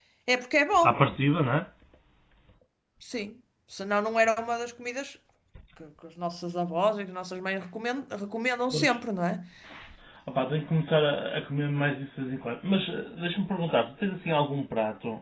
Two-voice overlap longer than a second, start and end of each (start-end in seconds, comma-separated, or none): none